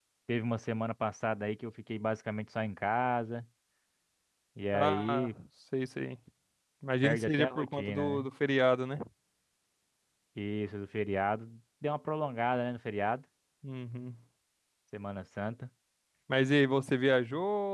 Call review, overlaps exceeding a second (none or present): present